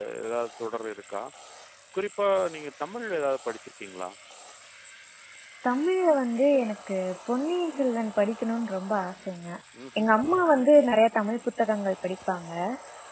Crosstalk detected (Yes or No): No